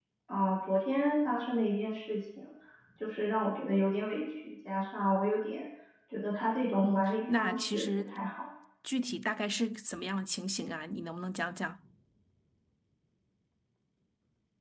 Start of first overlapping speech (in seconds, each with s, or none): 6.8 s